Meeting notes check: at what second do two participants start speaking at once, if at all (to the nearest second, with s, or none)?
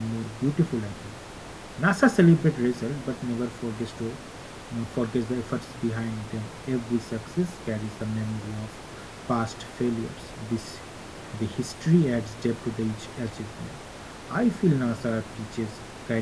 none